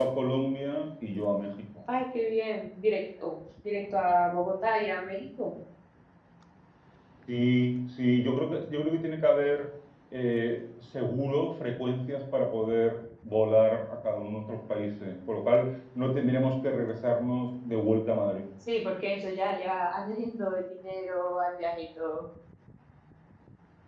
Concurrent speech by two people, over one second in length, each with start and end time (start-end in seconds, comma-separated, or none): none